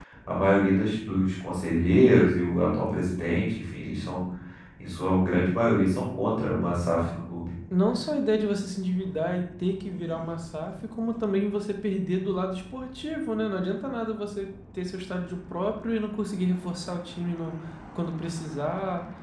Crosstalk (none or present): none